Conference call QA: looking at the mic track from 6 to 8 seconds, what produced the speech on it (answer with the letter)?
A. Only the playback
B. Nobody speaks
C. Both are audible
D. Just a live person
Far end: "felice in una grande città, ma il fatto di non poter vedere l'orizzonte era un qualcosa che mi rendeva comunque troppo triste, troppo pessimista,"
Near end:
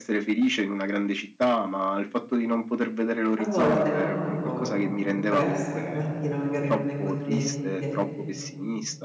C